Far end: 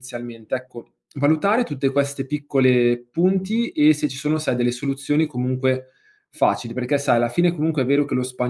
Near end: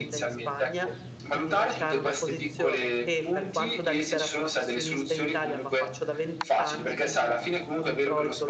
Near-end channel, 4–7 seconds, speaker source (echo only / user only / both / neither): both